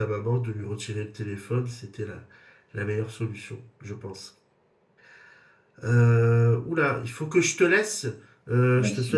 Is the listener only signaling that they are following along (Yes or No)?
Yes